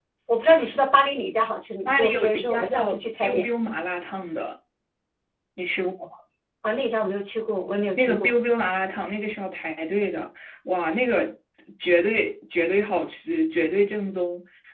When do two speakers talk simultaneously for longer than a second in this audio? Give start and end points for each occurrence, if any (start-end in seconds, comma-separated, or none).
1.9-3.5